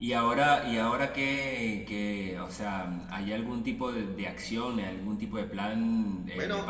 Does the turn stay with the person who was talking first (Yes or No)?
Yes